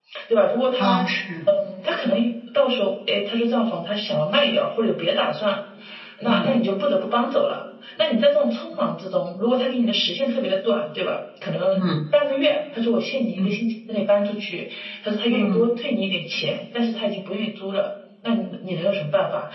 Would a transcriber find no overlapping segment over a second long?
Yes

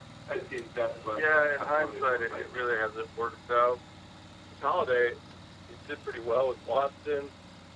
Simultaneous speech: Yes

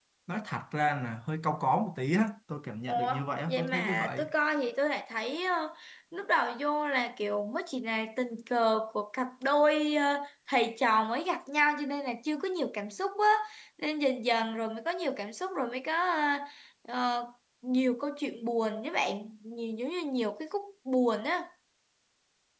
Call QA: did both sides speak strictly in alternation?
No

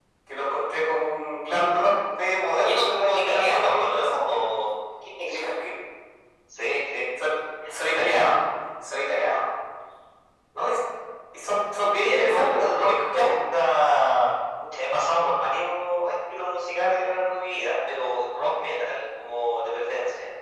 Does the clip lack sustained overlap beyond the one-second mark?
No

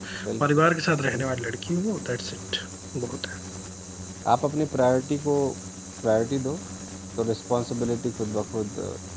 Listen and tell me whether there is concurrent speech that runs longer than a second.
No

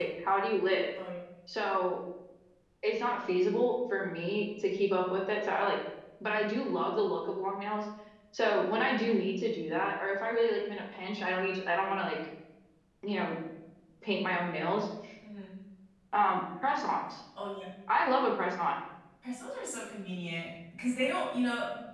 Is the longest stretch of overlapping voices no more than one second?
Yes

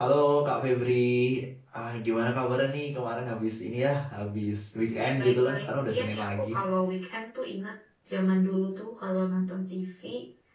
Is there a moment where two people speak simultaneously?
Yes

